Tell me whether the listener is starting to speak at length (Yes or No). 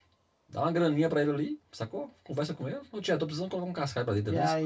Yes